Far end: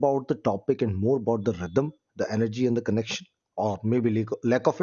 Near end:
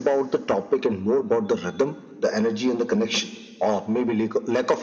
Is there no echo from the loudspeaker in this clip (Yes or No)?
No